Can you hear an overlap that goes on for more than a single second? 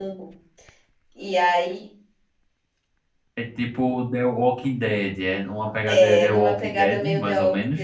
Yes, from 5.9 s

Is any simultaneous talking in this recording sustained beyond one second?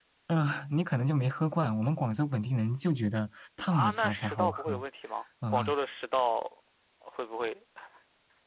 Yes, from 3.6 s

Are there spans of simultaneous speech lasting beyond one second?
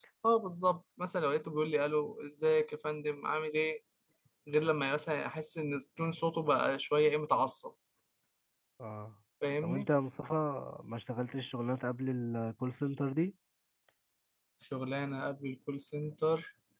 No

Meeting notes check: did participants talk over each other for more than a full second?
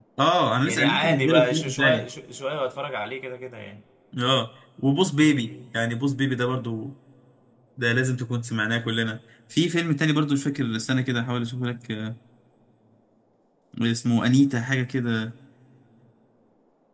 Yes, from 0.6 s

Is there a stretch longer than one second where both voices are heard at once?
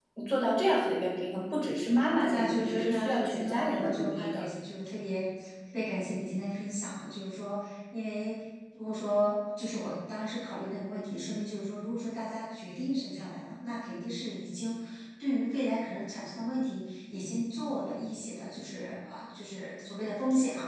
Yes, from 2.3 s

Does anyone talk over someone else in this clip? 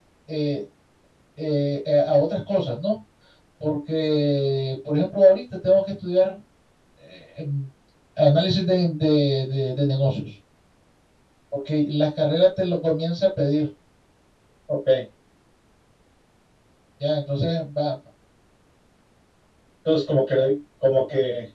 No

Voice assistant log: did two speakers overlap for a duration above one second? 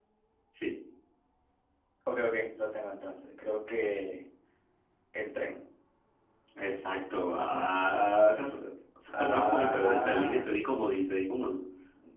Yes, from 9.1 s

